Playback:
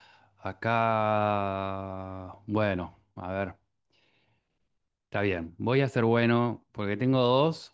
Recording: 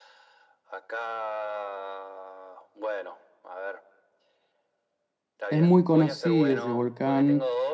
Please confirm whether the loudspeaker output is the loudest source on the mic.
No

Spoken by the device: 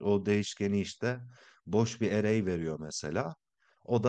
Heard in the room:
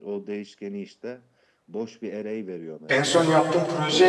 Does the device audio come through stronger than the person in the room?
No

